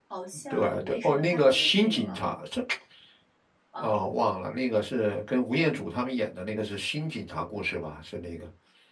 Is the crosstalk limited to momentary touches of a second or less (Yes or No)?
No